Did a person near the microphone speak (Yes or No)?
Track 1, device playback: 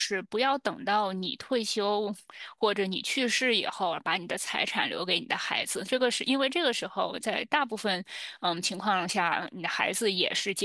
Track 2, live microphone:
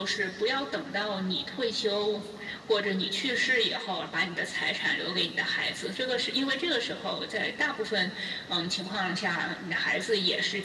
No